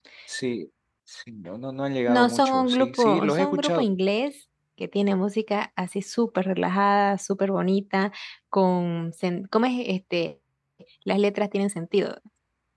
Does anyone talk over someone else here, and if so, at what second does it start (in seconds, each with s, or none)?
2.1 s